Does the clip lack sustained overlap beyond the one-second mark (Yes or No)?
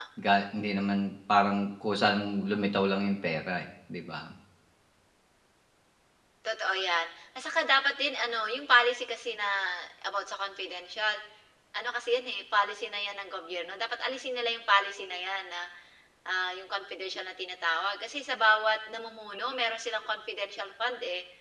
Yes